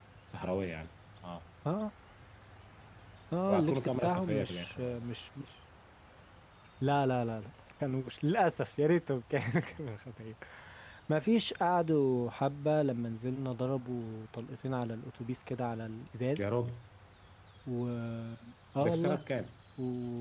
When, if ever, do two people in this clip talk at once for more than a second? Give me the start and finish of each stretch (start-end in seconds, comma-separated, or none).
3.5-5.0